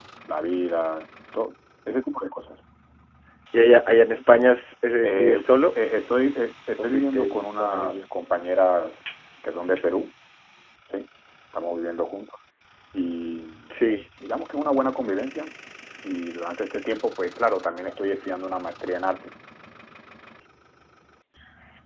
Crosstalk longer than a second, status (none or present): present